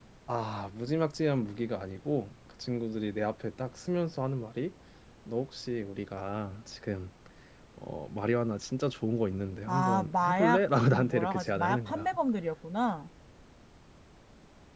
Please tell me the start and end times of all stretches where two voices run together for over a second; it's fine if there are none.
9.7-12.1

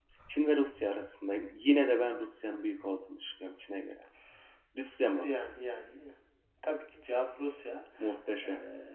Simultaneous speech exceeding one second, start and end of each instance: none

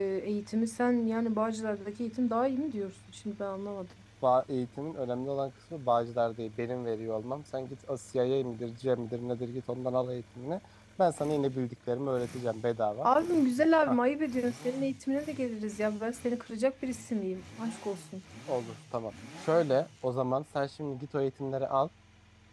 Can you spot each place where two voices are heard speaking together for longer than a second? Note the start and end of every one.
none

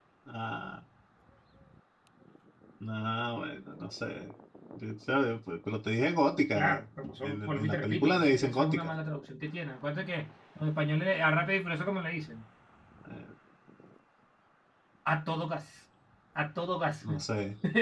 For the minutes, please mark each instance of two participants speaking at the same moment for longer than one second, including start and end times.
7.2-8.9

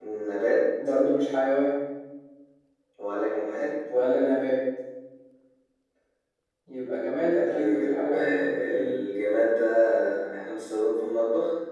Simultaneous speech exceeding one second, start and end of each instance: 7.5-9.0

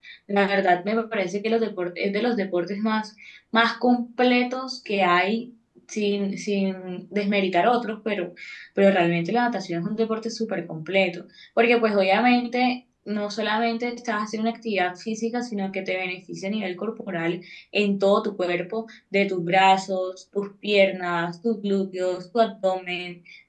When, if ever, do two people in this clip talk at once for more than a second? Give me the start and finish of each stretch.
none

